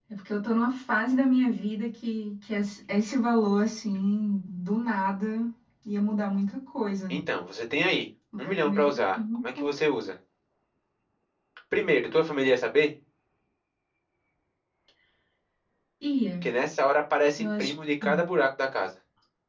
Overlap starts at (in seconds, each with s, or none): 8.4 s